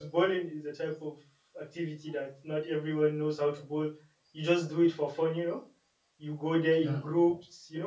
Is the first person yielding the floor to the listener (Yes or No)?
No